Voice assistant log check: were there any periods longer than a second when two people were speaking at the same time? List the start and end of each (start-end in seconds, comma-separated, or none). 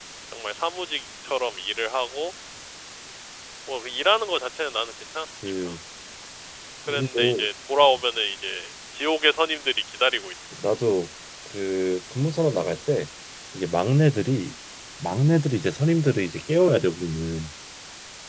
none